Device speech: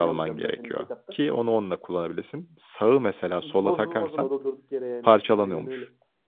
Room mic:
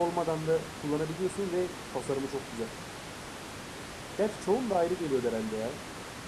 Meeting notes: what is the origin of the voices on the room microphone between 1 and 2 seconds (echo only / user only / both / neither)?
user only